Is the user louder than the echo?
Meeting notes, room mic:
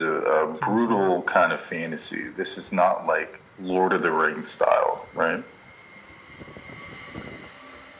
No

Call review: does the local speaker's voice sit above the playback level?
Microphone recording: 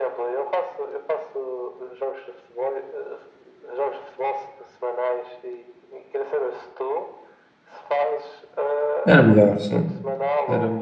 Yes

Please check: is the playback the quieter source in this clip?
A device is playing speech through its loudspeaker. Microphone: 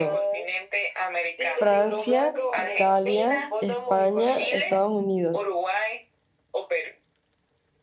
Yes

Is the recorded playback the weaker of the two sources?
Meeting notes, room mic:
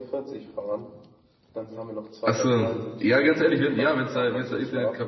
Yes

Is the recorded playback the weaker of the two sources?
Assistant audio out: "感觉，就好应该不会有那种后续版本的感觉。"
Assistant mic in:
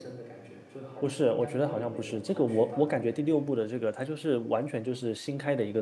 Yes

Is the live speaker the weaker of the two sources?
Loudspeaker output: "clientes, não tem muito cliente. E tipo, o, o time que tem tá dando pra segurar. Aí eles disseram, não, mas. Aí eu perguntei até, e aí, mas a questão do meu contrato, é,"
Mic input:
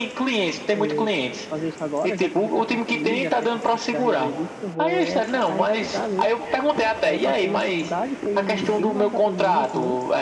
Yes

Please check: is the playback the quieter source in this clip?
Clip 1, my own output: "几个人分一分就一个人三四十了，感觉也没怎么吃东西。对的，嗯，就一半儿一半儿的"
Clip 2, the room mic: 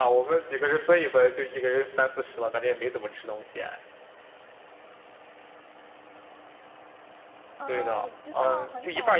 No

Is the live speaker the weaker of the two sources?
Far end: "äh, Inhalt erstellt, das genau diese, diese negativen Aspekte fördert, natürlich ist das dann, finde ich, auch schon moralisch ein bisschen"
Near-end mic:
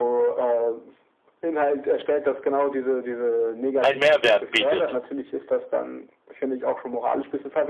No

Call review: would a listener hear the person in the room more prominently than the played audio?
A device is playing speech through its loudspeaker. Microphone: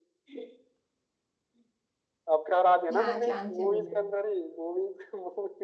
No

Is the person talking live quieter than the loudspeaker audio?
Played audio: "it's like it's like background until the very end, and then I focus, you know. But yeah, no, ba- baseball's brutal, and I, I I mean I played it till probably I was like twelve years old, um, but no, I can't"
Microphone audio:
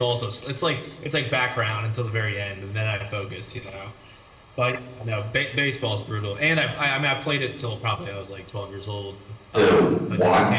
No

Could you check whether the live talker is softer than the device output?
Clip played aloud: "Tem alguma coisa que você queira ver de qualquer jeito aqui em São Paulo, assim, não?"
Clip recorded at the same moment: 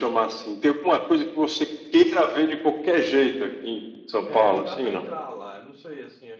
Yes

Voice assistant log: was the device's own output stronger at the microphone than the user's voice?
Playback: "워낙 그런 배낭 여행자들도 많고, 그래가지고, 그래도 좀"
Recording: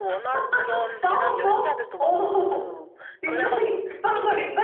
No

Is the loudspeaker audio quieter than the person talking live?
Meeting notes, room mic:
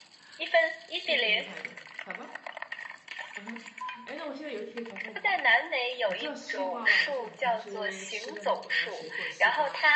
No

